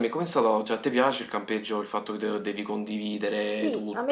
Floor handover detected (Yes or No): Yes